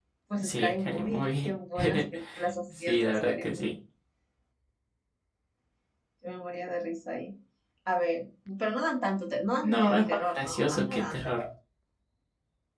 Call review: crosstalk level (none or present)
present